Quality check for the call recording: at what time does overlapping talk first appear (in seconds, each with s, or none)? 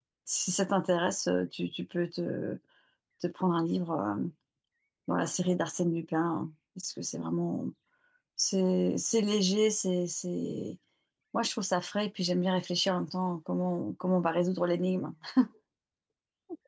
none